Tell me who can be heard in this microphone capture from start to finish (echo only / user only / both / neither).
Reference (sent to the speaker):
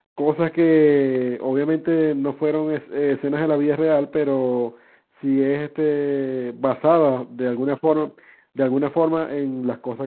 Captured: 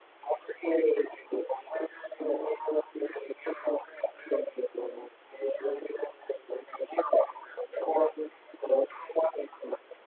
echo only